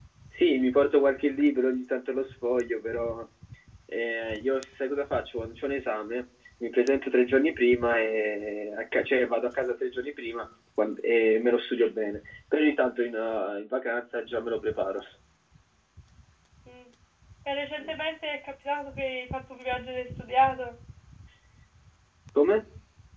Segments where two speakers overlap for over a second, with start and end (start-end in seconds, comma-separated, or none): none